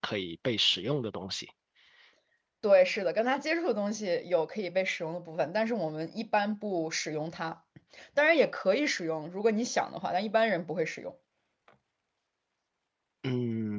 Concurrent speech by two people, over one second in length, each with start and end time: none

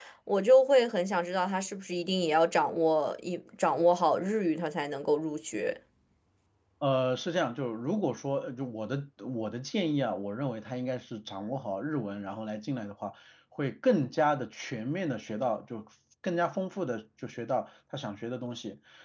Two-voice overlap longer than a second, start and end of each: none

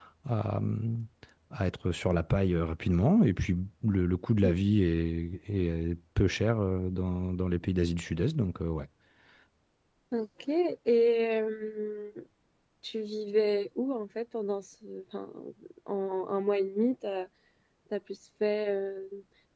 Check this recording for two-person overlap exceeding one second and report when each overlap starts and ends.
none

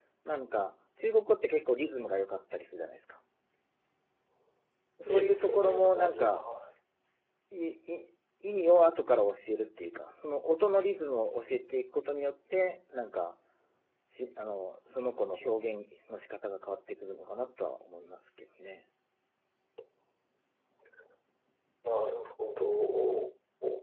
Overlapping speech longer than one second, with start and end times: 5.1-6.5

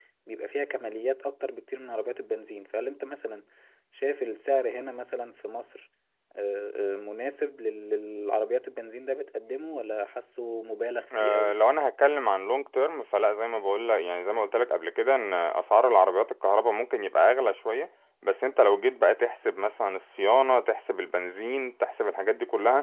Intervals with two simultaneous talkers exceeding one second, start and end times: none

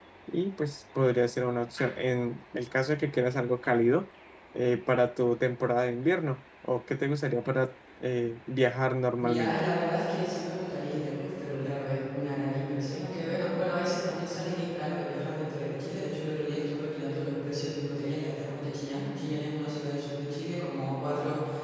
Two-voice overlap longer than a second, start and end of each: none

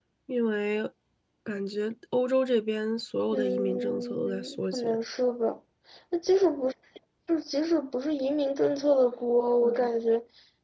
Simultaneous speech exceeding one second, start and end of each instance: 3.3-5.0

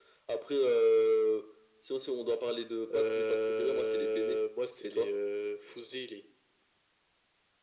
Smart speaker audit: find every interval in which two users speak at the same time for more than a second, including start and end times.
2.9-4.4

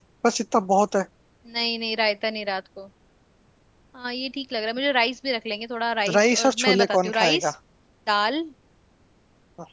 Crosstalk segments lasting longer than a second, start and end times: 6.2-7.5

